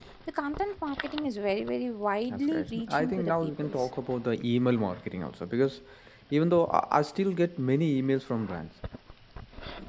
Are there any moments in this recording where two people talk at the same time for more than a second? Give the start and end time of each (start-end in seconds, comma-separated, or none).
2.3-3.9